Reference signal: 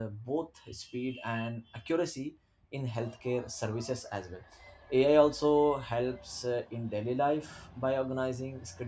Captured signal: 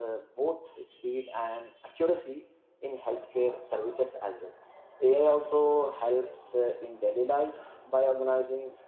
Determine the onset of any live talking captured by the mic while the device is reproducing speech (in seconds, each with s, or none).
none